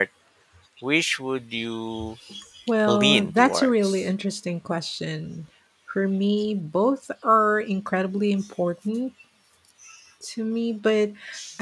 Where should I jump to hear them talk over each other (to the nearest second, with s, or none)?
3 s